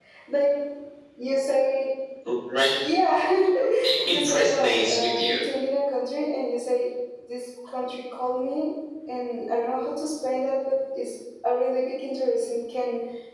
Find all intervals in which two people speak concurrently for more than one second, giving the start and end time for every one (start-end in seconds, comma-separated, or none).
4.0-5.4